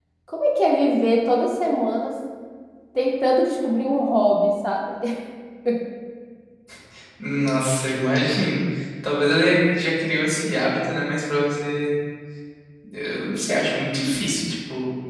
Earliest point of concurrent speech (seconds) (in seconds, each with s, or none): none